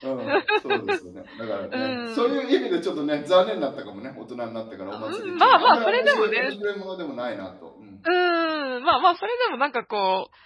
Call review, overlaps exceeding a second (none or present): present